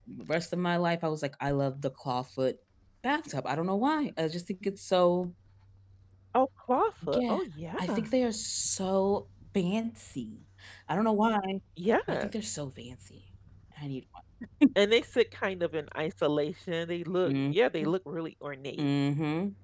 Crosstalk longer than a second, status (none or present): none